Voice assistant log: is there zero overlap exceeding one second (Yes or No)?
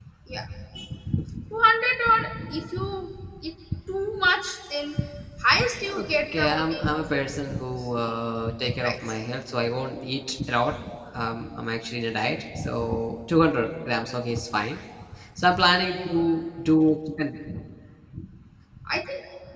No